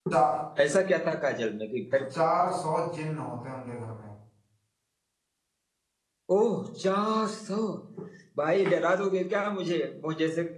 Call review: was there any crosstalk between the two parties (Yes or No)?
No